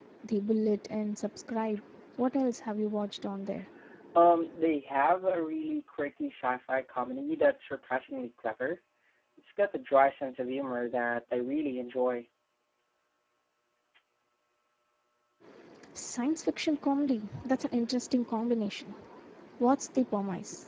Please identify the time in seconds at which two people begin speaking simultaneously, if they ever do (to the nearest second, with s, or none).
none